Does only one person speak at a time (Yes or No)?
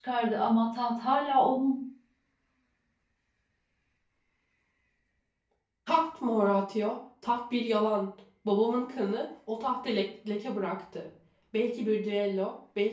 Yes